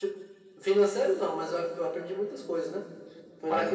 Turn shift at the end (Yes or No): No